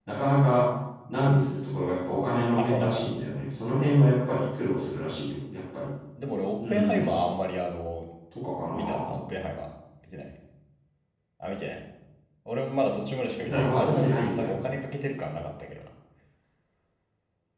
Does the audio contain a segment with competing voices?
Yes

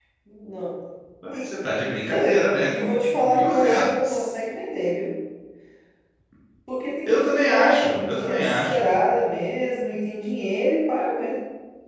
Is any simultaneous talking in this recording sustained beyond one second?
Yes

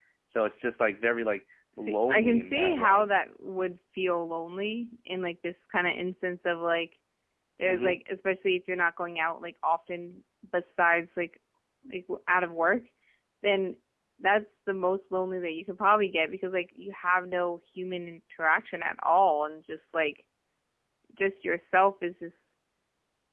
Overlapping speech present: Yes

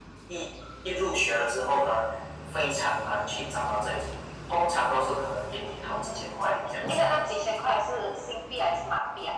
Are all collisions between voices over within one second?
No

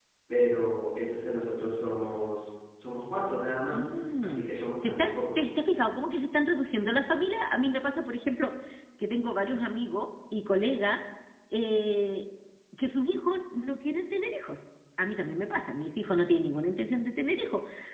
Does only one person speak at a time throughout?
No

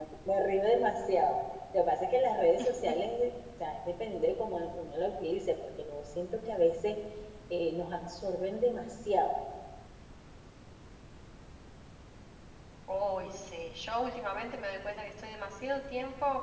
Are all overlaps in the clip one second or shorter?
Yes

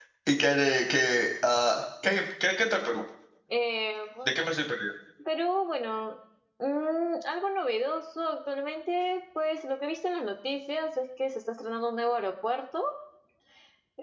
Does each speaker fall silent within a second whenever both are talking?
Yes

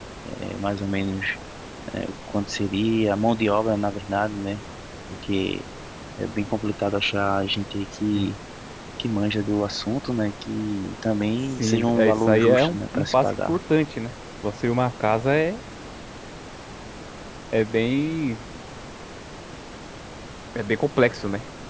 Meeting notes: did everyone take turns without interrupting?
No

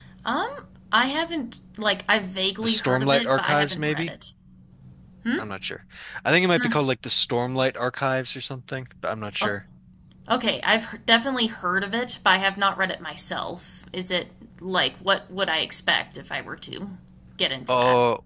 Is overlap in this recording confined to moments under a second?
No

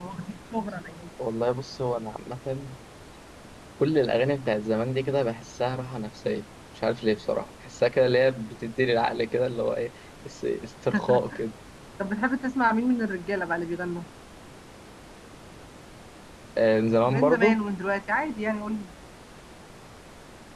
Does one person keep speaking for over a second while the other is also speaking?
No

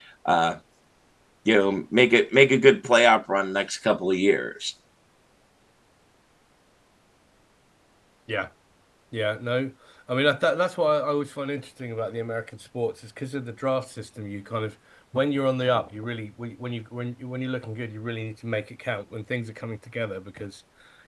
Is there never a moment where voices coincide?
Yes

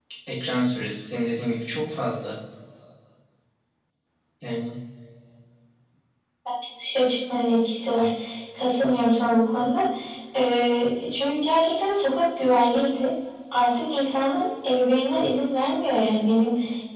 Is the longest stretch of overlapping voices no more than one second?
Yes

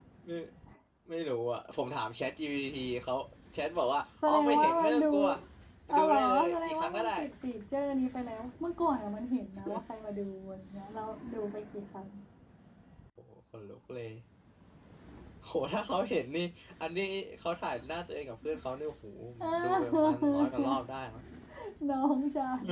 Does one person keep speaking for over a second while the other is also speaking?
Yes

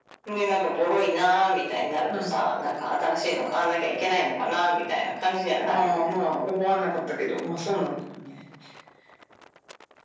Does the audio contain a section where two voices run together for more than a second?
No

